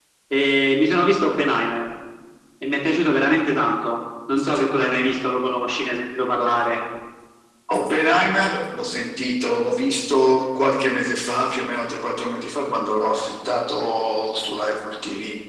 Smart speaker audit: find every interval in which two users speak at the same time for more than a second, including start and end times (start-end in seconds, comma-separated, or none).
none